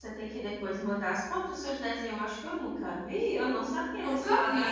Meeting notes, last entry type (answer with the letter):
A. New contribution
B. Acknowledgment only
B